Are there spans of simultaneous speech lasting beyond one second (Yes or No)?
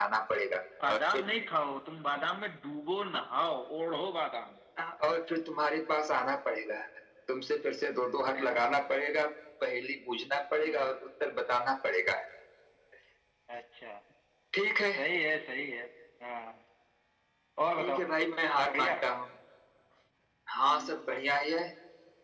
No